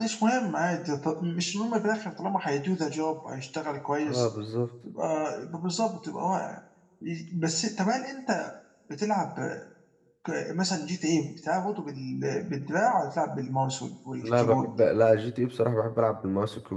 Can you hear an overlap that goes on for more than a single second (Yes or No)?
No